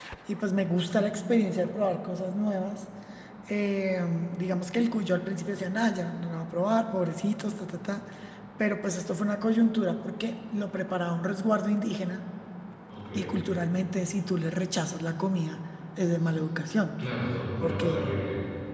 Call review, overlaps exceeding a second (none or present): none